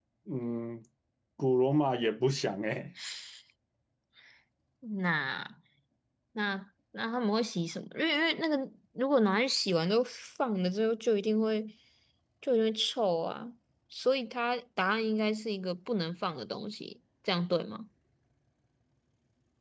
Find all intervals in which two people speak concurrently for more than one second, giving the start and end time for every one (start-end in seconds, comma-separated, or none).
none